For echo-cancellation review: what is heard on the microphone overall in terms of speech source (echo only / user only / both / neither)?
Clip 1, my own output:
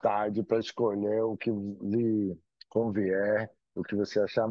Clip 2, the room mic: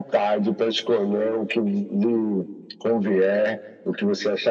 echo only